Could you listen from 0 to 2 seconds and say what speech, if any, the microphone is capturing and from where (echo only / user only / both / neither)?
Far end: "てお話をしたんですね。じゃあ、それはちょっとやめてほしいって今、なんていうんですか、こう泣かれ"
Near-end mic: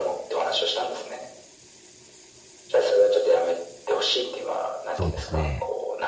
echo only